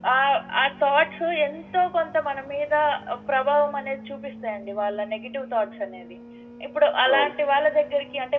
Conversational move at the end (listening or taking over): listening